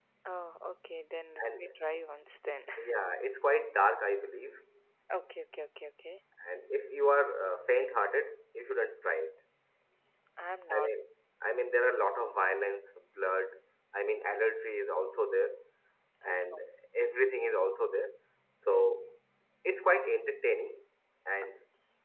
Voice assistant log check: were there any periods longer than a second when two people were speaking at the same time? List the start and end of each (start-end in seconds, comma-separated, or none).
none